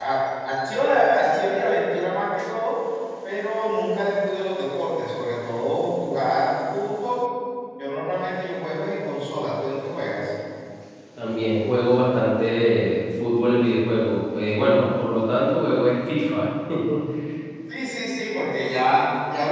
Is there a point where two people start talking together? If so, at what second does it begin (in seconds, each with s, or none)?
none